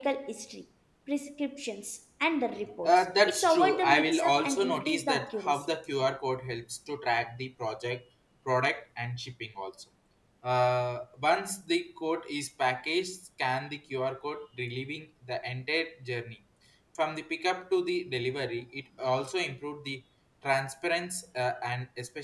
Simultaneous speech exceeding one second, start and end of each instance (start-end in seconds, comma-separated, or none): 2.8-5.7